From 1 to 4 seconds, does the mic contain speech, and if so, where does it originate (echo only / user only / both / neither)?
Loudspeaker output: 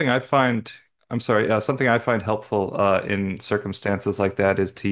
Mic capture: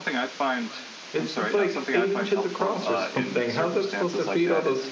both